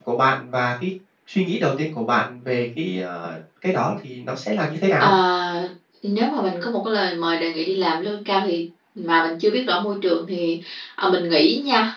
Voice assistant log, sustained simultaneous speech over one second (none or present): none